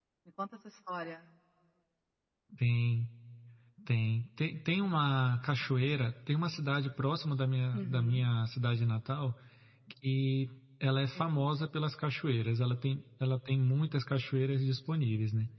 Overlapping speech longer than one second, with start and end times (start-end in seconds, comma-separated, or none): none